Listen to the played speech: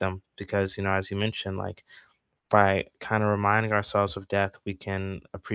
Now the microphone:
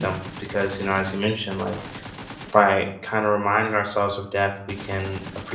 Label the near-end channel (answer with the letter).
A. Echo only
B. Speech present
A